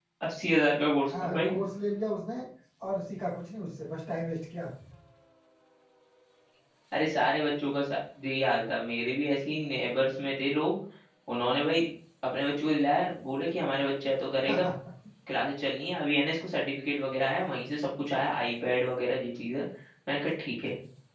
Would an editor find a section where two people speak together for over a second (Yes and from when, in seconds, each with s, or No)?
No